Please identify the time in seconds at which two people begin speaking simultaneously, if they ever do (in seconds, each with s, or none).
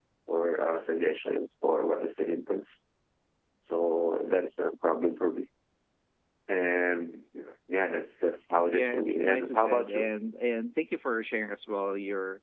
8.7 s